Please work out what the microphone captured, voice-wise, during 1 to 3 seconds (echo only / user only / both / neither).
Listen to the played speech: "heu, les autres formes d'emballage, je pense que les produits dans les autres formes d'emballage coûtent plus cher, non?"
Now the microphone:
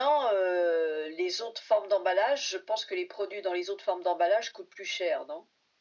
echo only